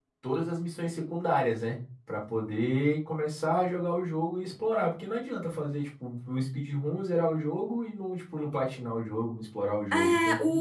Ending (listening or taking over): taking over